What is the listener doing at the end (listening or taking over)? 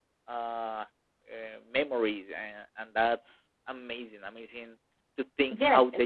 taking over